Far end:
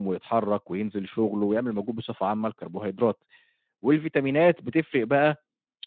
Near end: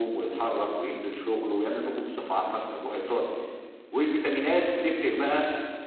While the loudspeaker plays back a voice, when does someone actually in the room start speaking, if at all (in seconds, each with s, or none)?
none